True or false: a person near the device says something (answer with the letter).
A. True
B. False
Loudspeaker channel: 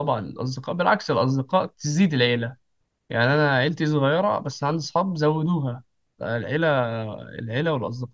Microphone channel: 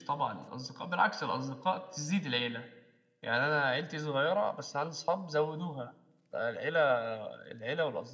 B